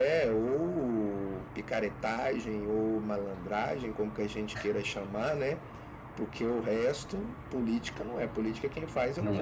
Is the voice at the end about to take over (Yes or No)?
No